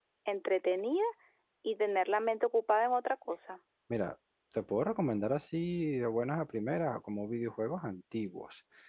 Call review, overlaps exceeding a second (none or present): none